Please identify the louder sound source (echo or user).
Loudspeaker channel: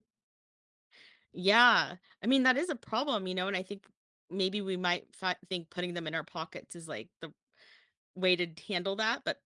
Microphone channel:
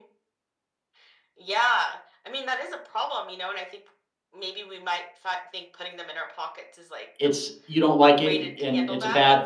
user